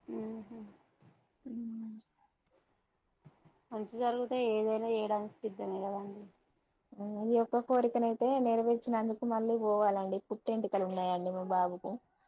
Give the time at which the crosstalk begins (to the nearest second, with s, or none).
none